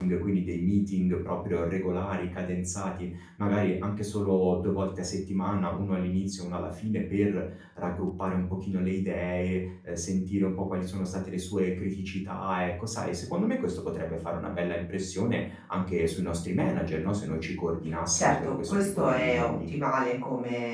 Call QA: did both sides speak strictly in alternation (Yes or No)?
No